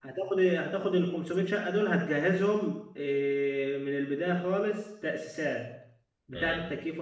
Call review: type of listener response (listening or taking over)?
listening